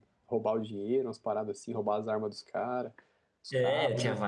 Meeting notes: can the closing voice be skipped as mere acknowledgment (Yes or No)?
No